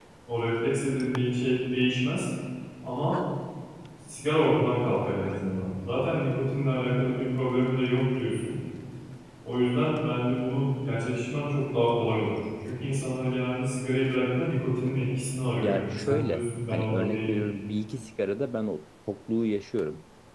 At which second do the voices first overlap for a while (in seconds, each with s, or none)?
15.6 s